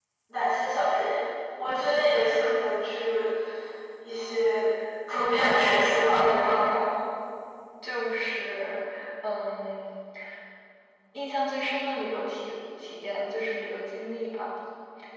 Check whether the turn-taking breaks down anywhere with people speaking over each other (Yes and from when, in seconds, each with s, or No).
Yes, from 5.4 s